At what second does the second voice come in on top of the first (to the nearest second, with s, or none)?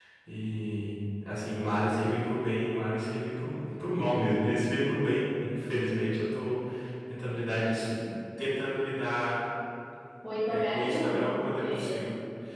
10 s